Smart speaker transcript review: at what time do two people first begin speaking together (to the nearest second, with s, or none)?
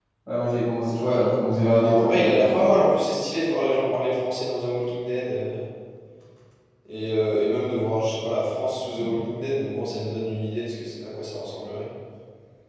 1 s